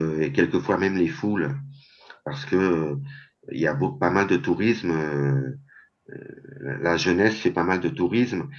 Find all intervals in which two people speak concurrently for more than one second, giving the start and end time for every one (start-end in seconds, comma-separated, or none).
none